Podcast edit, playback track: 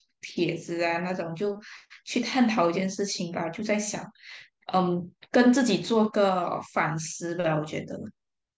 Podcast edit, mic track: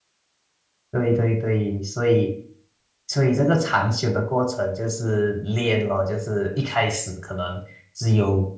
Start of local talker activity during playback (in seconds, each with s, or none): 0.9 s